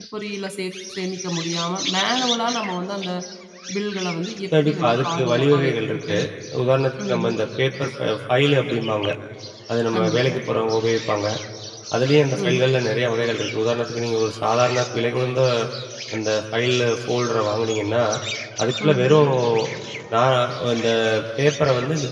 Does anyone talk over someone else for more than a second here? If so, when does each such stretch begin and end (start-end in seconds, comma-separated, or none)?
4.6-6.2